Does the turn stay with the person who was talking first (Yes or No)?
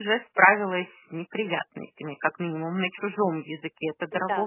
No